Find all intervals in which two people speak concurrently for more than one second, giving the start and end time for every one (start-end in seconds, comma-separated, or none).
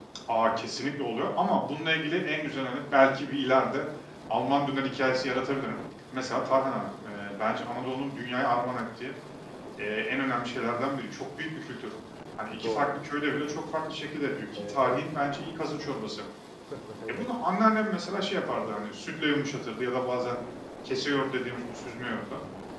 none